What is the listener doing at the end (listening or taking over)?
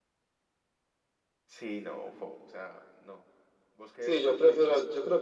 taking over